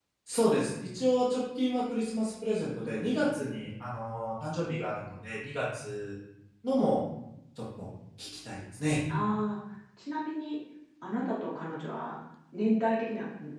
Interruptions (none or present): none